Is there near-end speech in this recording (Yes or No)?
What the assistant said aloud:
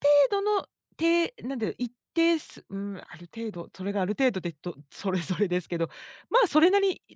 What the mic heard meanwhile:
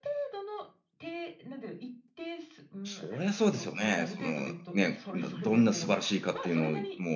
Yes